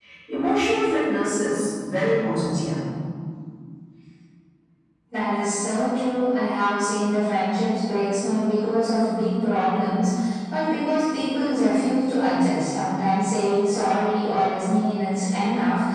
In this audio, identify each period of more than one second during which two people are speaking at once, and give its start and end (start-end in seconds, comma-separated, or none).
none